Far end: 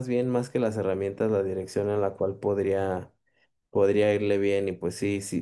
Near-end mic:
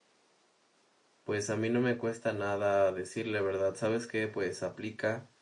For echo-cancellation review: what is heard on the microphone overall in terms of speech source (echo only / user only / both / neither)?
user only